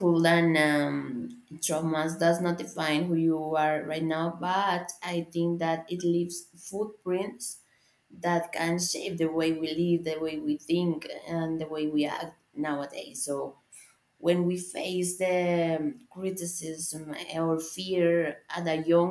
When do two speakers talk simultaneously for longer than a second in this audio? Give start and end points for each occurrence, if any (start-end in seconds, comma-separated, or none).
none